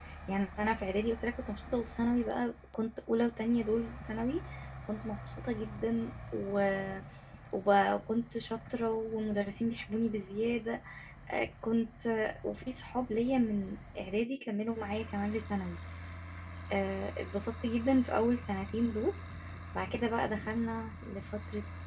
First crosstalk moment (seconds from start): none

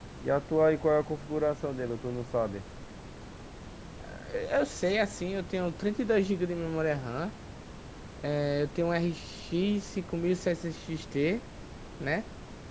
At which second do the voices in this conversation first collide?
none

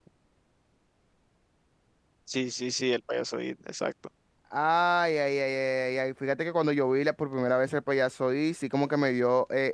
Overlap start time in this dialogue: none

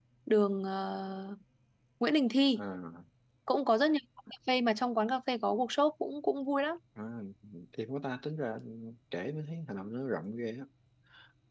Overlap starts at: none

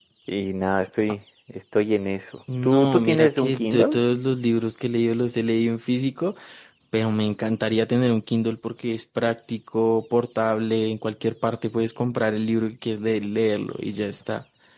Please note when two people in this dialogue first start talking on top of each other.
2 s

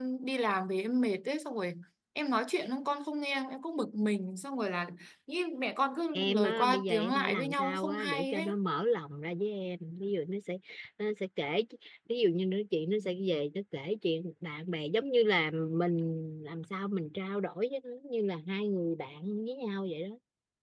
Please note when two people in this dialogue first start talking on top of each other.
6 s

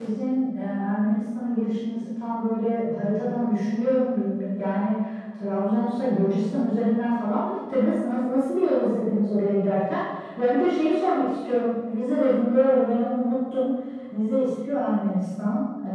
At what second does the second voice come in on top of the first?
none

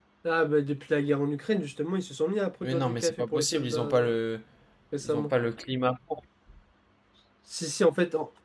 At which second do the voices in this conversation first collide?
3 s

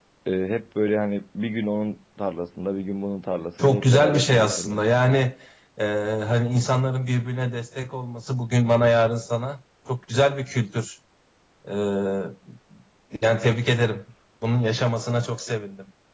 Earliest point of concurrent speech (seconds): 4 s

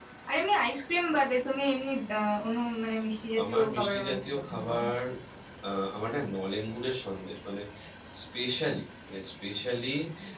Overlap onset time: 3 s

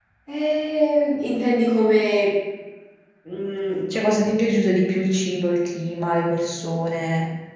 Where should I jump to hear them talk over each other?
none

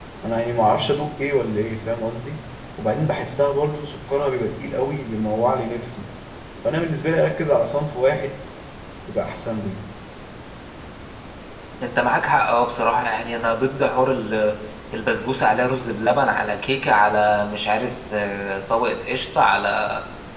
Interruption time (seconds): none

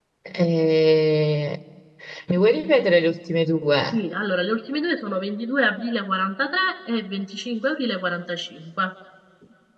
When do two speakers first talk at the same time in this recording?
none

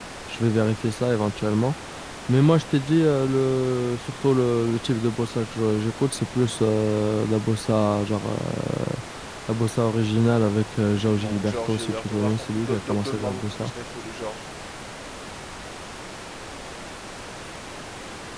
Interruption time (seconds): 11 s

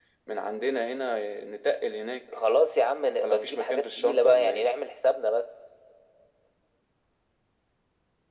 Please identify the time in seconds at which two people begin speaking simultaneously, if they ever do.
3 s

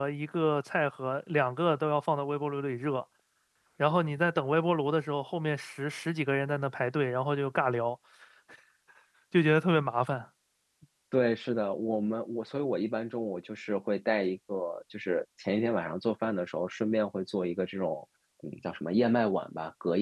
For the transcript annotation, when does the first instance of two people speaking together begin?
none

